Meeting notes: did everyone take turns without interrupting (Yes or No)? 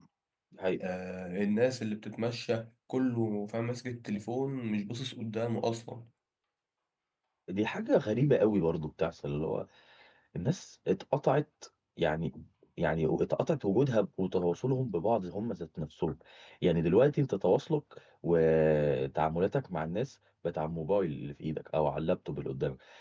Yes